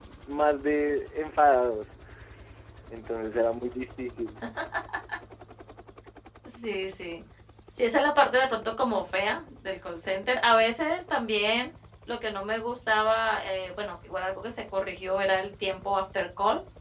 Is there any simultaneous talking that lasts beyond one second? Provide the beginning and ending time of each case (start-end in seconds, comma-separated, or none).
none